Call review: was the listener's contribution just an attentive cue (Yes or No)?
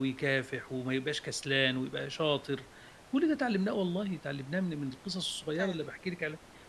Yes